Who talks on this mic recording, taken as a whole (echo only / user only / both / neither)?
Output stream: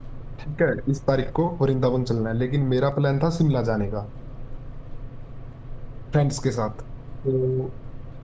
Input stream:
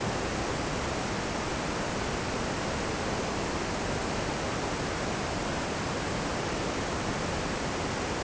neither